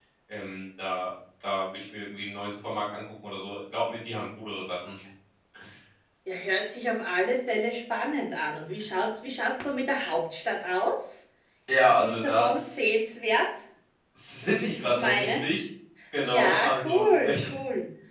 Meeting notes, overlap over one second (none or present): present